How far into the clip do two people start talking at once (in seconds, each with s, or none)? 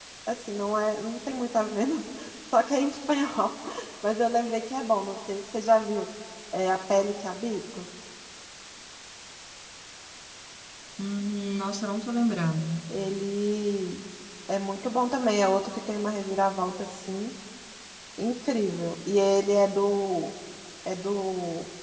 none